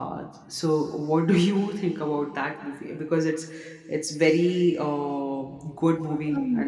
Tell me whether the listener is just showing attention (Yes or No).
No